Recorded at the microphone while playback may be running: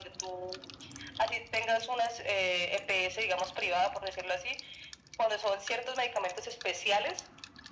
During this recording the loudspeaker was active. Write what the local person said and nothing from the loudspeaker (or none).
none